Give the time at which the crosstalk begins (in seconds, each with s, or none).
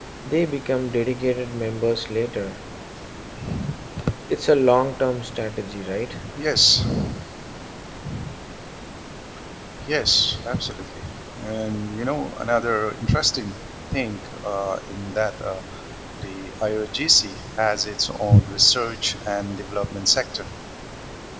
none